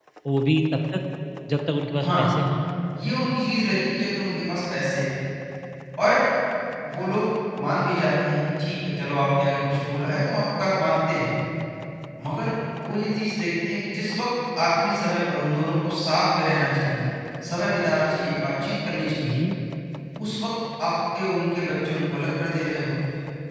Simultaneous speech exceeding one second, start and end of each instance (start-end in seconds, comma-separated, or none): none